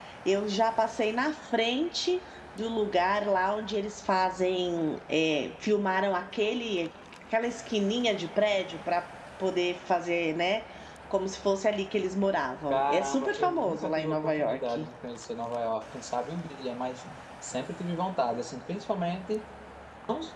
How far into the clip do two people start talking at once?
12.7 s

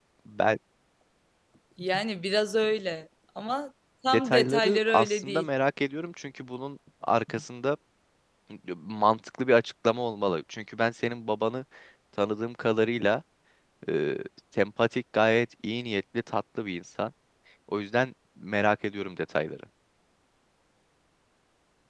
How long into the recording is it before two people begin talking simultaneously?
4.1 s

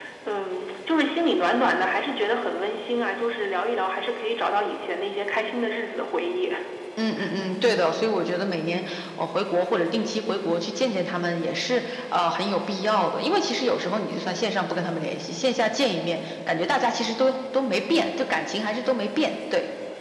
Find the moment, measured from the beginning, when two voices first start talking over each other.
none

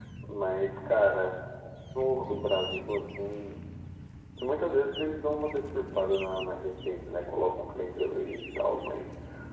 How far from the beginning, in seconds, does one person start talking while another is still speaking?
none

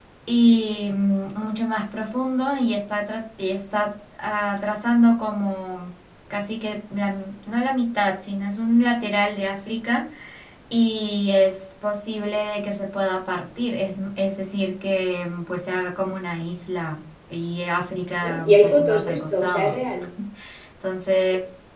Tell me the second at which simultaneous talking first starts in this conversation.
18.1 s

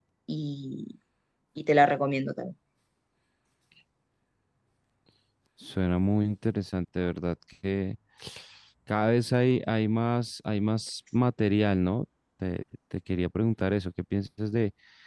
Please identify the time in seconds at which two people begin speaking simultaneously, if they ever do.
none

